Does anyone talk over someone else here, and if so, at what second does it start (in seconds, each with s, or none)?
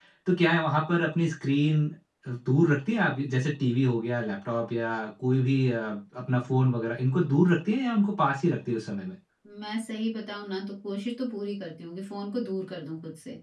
none